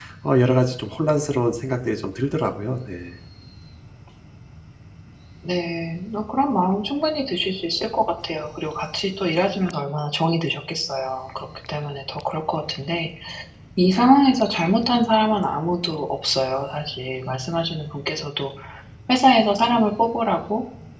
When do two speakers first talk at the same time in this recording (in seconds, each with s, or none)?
none